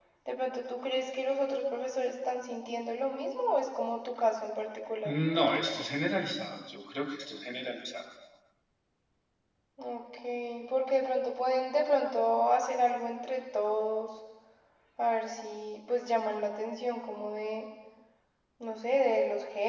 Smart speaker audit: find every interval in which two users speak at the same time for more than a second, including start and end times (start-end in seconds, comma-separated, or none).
none